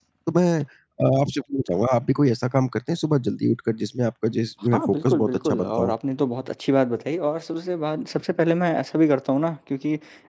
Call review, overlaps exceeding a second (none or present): present